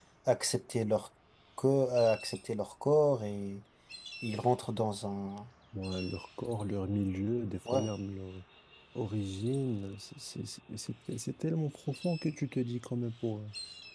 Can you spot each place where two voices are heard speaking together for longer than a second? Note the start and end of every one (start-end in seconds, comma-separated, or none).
none